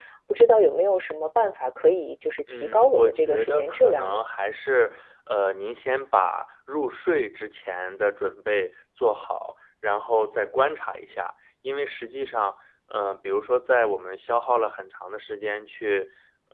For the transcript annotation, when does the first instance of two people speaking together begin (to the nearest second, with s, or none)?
2 s